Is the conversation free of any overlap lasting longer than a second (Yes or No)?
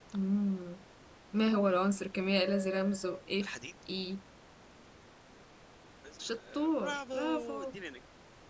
No